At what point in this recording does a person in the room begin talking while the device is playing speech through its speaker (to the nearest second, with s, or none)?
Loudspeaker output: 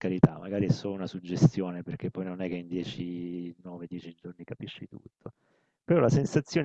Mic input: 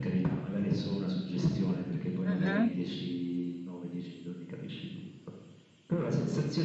2 s